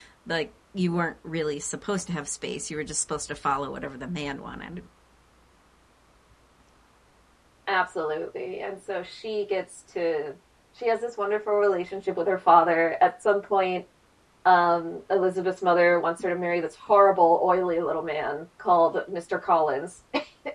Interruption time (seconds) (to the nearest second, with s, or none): none